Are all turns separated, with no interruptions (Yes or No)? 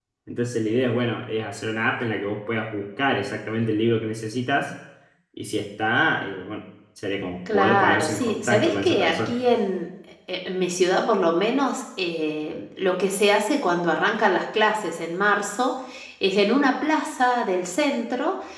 No